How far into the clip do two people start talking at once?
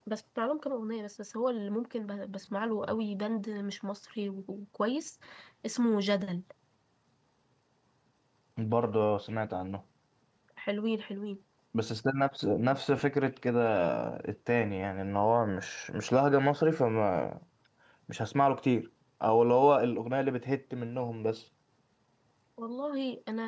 none

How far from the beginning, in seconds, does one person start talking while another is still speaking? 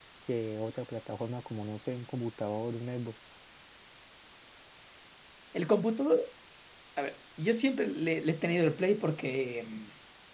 none

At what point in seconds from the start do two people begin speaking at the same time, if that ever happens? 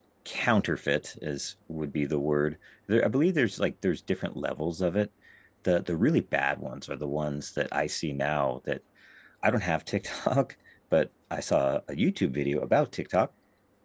none

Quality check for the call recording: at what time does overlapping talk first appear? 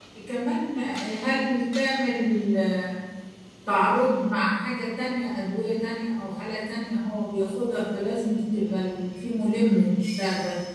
none

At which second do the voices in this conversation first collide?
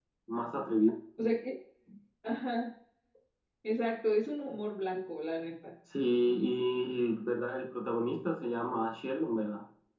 none

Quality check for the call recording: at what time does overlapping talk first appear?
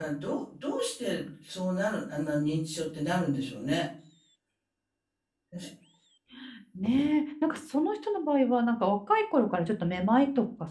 none

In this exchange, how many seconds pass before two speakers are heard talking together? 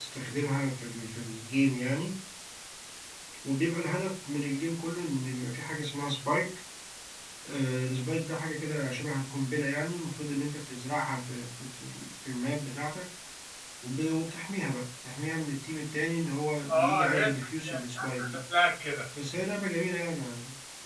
17 s

